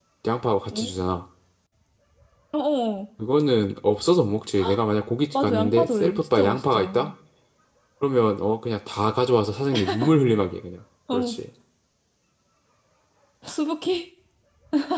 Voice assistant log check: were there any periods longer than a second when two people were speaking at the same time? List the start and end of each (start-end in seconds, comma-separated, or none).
5.3-7.1